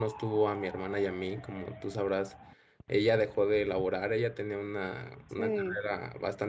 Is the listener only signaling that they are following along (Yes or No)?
Yes